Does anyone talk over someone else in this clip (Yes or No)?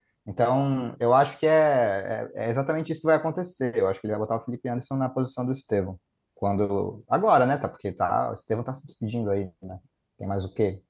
No